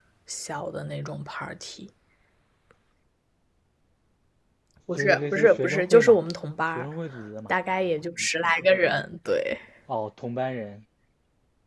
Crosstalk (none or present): present